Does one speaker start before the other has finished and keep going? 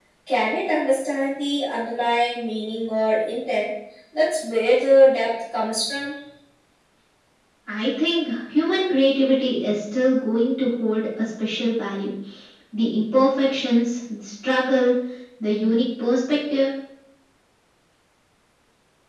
No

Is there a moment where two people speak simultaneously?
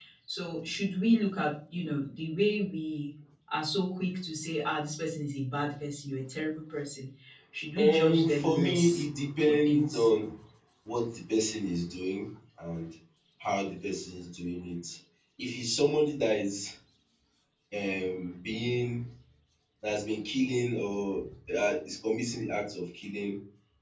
Yes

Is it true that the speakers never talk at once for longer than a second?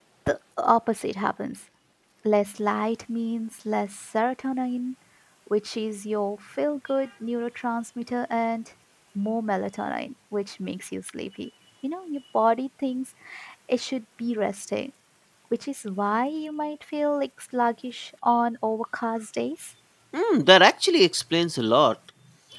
Yes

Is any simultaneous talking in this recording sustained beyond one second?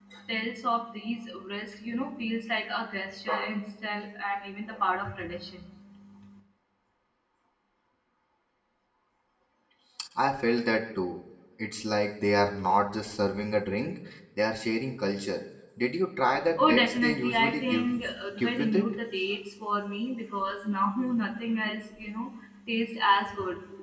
Yes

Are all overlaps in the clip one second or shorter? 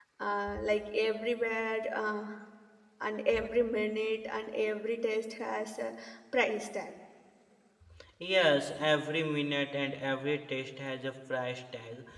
Yes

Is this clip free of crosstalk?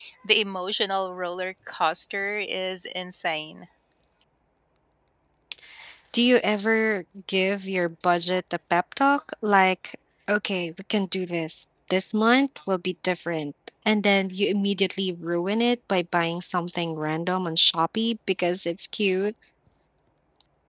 Yes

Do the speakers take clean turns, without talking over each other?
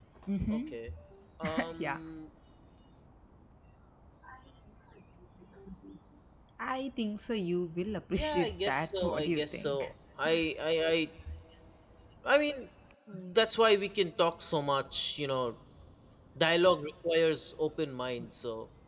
No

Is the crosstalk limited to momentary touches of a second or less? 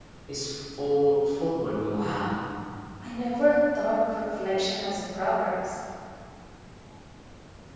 Yes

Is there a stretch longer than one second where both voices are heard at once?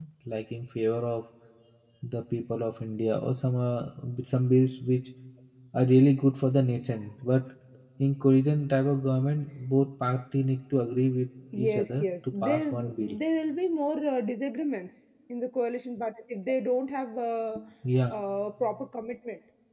Yes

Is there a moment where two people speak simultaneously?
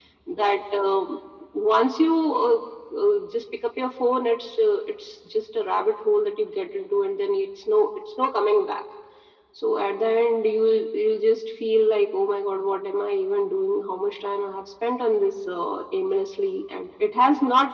No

